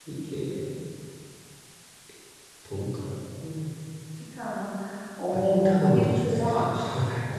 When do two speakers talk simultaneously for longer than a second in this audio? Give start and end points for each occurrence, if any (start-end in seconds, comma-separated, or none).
5.3-6.7